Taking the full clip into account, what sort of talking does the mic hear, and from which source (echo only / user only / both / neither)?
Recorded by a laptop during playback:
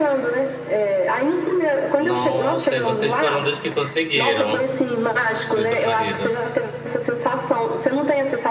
both